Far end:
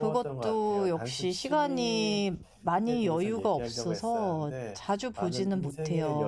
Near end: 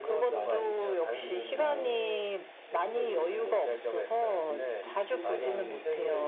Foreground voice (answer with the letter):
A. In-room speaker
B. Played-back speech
B